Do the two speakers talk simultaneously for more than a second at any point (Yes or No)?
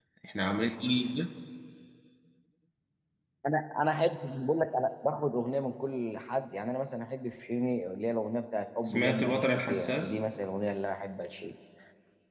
Yes